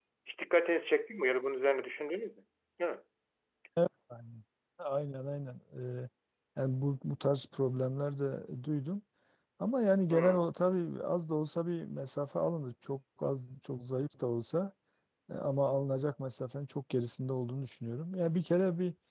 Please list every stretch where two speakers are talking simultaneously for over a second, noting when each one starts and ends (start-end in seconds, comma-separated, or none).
none